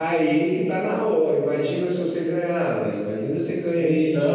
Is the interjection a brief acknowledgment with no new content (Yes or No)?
Yes